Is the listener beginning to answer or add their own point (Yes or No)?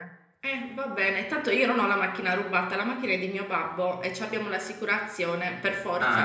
Yes